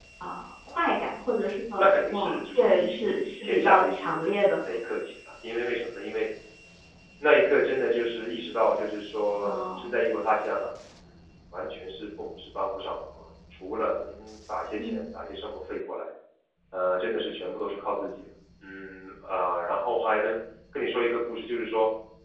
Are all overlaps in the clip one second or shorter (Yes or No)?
No